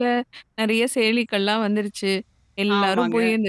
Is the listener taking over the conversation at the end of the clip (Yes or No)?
No